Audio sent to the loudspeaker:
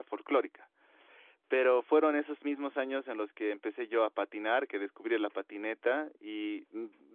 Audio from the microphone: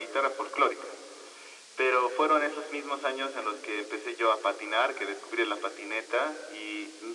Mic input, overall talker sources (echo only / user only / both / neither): echo only